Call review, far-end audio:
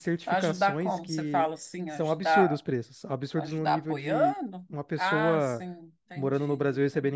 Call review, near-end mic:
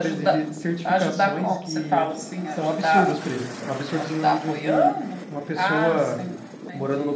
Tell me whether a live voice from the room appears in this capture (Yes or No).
No